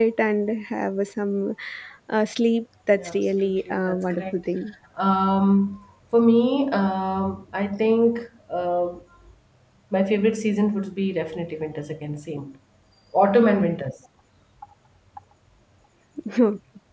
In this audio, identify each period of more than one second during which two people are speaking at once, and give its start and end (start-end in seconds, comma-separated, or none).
3.0-4.3